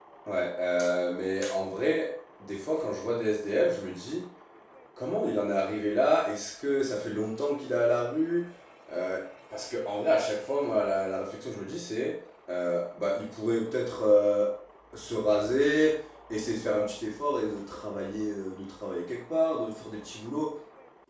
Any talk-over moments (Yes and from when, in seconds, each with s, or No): No